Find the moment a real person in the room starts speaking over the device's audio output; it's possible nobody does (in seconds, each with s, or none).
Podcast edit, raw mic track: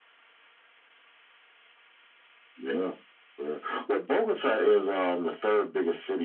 none